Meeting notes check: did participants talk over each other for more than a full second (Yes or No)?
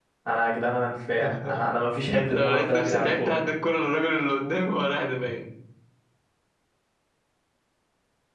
Yes